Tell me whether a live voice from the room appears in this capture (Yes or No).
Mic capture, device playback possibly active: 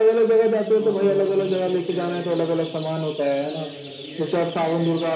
Yes